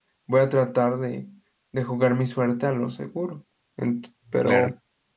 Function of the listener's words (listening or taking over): listening